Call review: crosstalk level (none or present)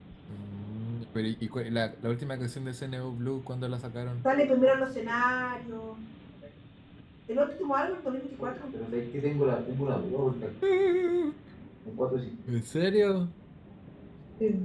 none